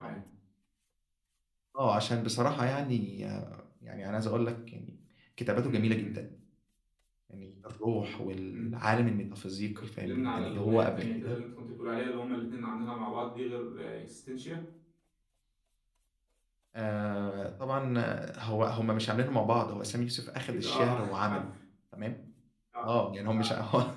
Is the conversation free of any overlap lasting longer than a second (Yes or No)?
No